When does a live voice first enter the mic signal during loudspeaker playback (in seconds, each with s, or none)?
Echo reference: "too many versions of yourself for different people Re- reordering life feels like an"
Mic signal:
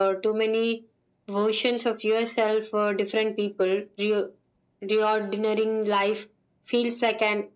none